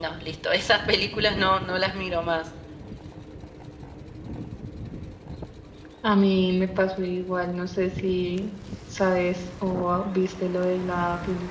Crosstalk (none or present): none